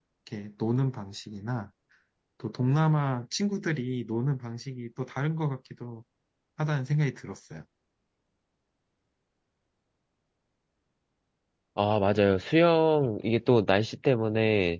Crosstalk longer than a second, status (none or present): none